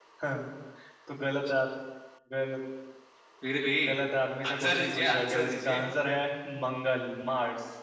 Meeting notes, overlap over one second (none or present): present